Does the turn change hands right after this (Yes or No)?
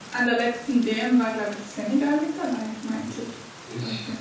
Yes